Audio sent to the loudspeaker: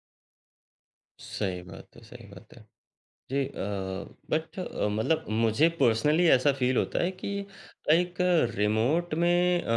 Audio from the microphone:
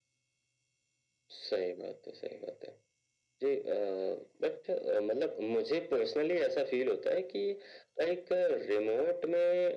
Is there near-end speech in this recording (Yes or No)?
No